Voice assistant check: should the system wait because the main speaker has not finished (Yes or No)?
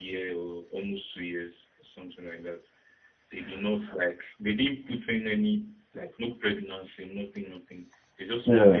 Yes